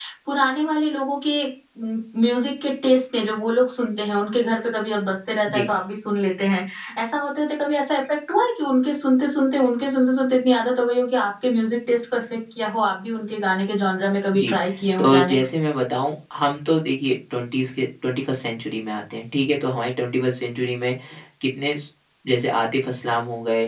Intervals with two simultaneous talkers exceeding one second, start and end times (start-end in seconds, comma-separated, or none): none